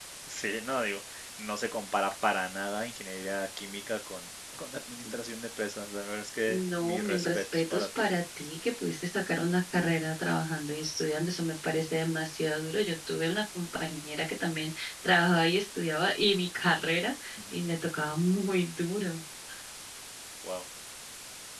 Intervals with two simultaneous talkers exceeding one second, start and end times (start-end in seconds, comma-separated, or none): 6.5-8.1